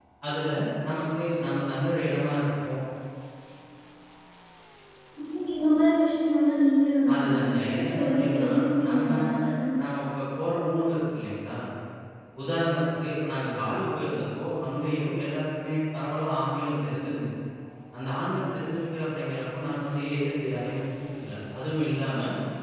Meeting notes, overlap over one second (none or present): present